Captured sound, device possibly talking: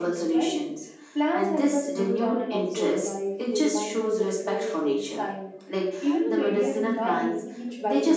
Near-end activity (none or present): present